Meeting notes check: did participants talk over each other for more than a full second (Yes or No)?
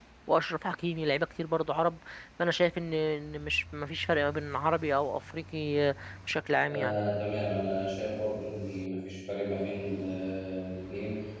No